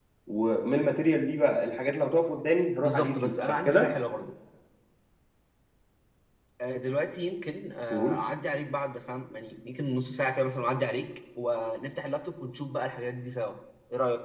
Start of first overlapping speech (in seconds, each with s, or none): 2.8 s